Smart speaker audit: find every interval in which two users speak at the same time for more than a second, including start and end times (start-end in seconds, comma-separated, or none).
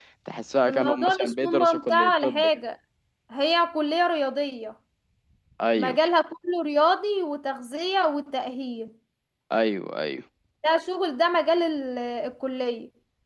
0.7-2.5